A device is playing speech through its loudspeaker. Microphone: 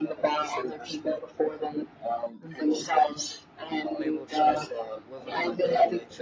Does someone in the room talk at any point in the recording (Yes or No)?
Yes